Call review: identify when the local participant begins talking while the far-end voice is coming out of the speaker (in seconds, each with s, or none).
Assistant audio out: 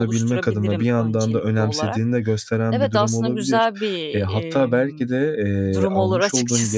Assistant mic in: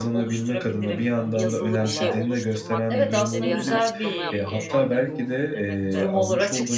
1.3 s